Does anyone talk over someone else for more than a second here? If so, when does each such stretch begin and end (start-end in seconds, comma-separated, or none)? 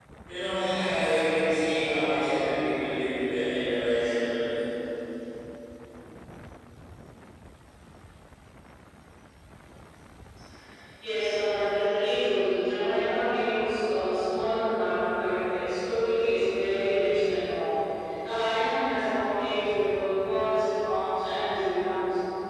none